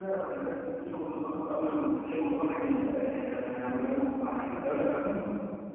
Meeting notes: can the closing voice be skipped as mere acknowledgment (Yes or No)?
Yes